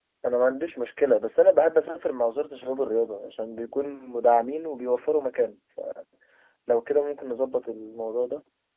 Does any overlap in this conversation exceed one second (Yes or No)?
No